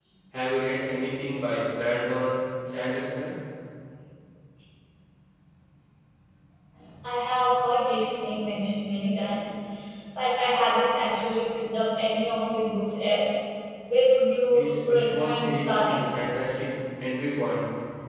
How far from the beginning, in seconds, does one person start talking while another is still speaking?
14.5 s

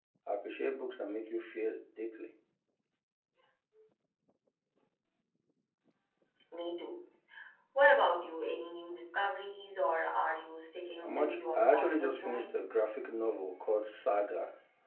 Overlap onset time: 11.0 s

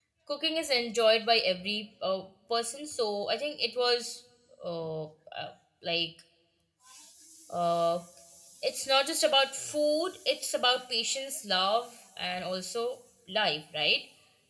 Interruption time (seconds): none

